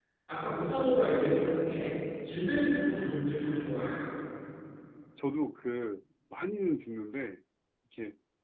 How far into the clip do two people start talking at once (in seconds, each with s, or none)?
none